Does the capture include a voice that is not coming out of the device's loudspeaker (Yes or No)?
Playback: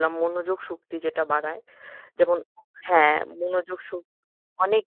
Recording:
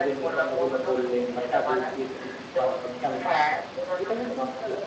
Yes